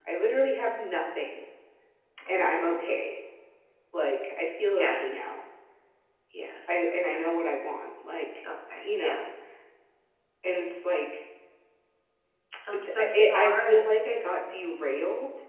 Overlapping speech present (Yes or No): Yes